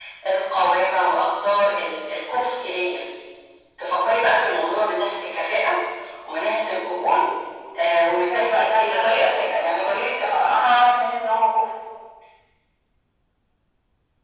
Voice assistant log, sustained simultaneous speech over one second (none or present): present